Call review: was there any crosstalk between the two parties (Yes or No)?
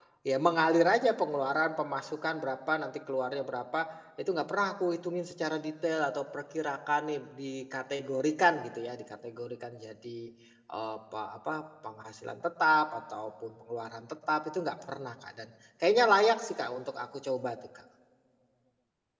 No